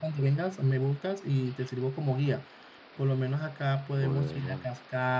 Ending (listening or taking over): listening